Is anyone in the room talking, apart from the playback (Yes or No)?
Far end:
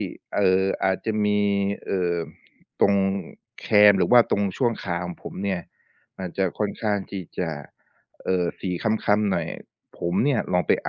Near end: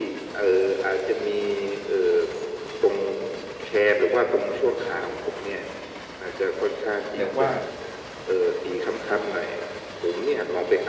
Yes